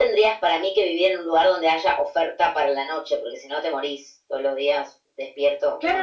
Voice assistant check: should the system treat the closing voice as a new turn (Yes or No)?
Yes